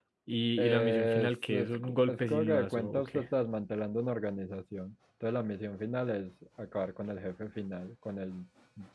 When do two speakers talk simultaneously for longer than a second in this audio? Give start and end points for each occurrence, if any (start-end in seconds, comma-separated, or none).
0.6-3.2